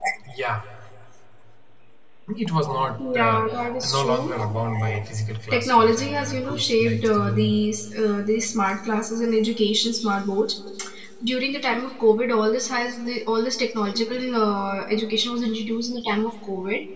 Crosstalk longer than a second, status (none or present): present